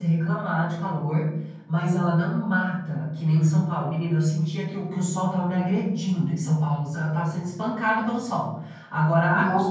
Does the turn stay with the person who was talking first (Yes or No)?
Yes